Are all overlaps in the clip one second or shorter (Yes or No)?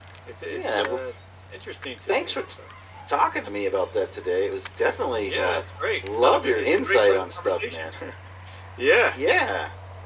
No